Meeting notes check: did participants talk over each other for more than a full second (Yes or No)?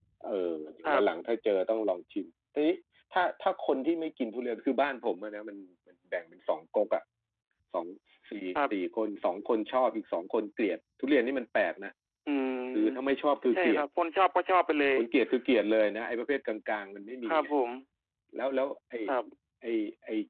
No